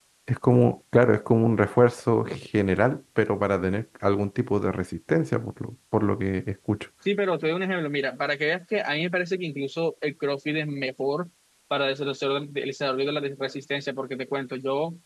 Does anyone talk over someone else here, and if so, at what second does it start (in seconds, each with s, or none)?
none